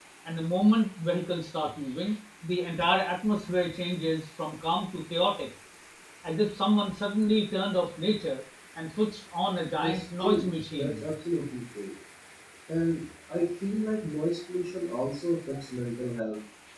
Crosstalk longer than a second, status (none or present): present